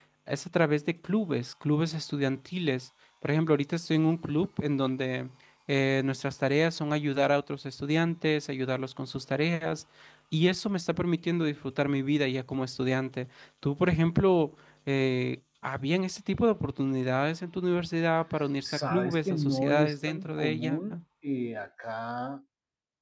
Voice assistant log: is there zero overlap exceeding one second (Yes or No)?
No